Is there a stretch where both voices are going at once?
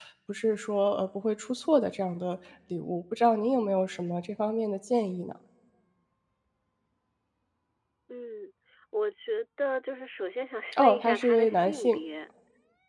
Yes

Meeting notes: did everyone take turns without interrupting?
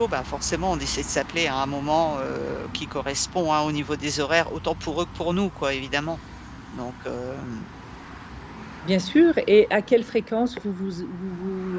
Yes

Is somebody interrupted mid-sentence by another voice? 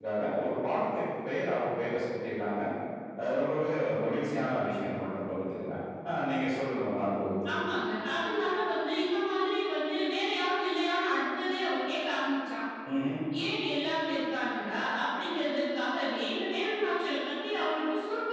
No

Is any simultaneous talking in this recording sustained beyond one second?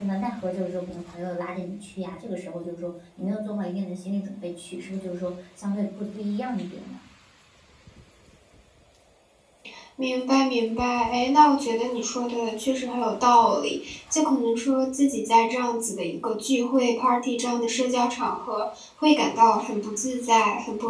No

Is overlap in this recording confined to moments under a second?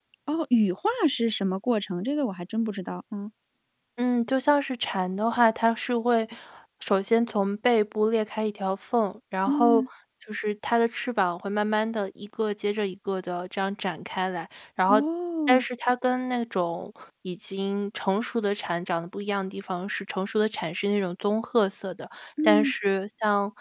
Yes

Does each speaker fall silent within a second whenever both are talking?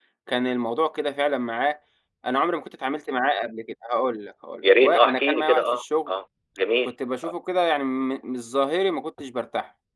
No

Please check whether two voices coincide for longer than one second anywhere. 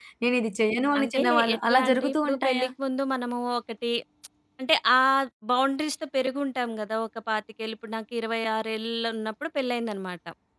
Yes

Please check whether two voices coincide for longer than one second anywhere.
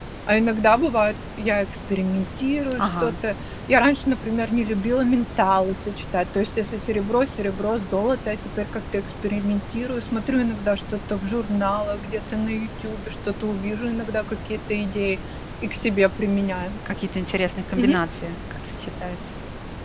No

